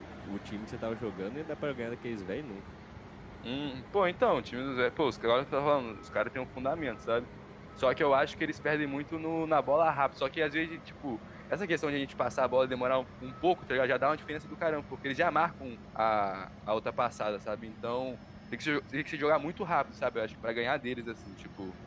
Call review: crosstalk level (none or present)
none